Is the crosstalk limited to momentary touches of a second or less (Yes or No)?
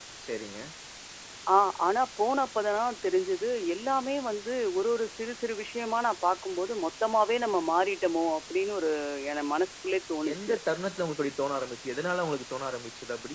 Yes